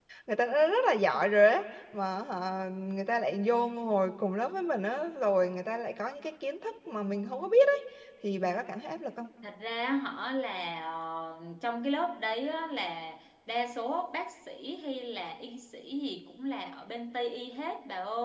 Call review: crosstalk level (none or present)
none